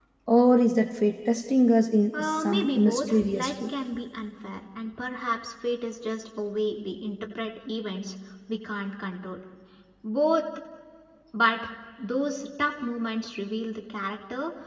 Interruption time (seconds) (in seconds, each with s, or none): 2.1 s